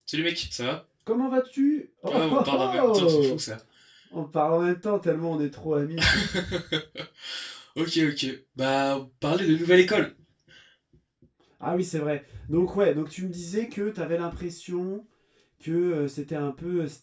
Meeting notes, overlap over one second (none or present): present